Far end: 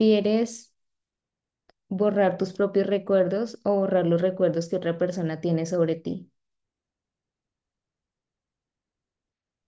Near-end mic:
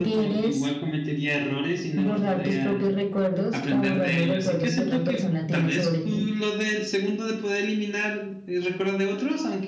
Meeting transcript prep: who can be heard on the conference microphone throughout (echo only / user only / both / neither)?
both